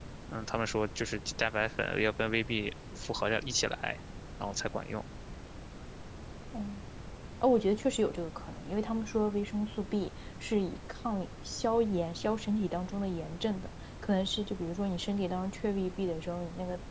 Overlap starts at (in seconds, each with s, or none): none